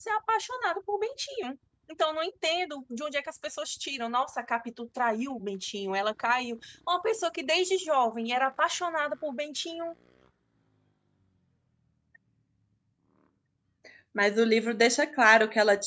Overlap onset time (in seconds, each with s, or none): none